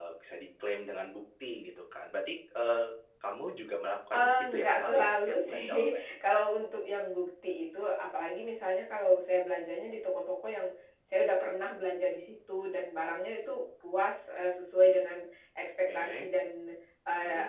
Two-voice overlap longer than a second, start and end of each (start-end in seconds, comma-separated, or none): 4.1-6.0